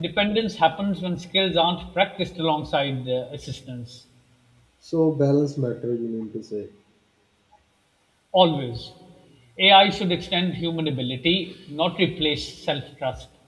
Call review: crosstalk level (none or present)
none